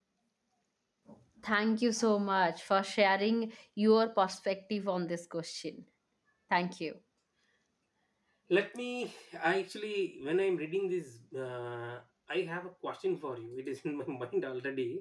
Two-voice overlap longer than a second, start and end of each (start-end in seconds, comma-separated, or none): none